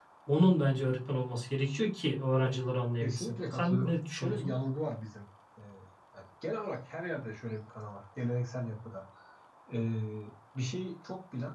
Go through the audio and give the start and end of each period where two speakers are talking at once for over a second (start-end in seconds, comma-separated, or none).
3.0-4.5